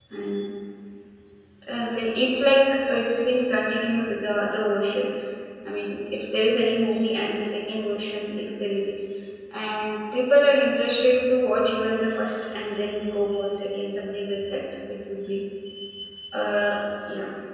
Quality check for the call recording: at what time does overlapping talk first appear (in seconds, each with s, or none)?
none